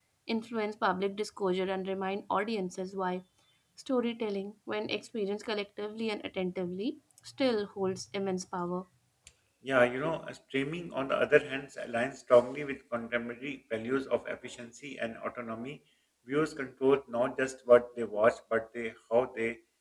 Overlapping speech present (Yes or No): No